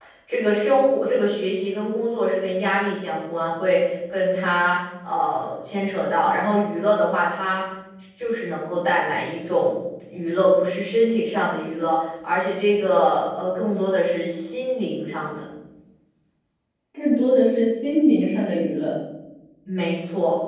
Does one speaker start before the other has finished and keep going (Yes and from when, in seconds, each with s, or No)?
No